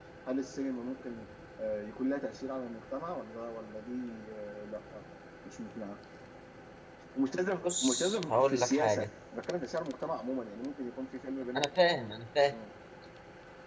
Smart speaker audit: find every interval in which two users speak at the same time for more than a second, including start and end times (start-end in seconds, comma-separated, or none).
7.6-9.1